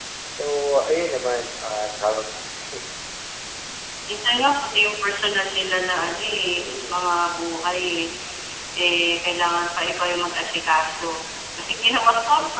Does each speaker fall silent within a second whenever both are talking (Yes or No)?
Yes